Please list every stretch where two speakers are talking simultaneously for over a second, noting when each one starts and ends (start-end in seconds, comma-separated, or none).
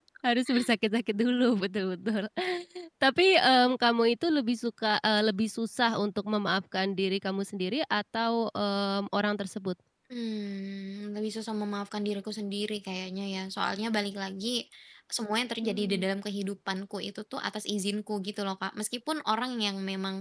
none